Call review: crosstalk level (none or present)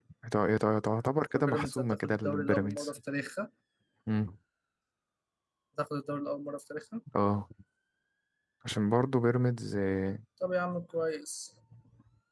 present